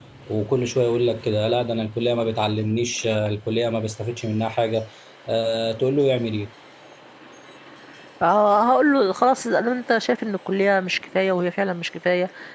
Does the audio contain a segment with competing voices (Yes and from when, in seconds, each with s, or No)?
No